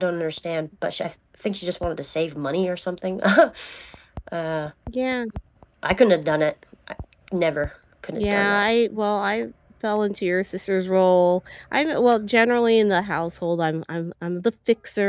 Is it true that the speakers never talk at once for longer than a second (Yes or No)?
Yes